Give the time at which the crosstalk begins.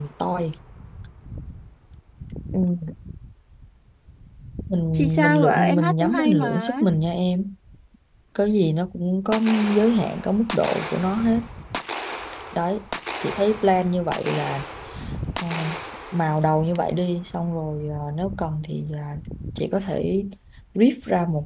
4.9 s

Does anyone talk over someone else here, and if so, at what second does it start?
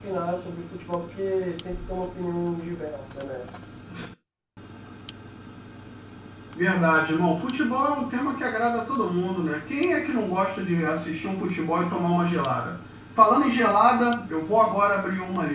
none

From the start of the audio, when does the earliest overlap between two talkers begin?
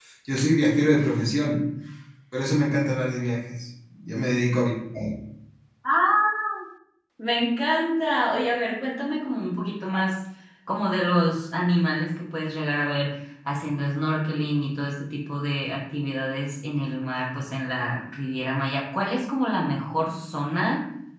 none

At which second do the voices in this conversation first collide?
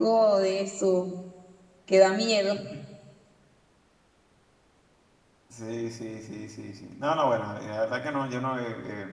none

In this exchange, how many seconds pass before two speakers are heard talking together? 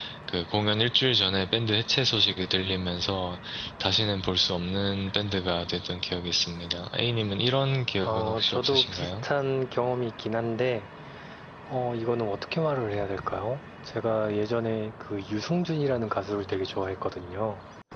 8.0 s

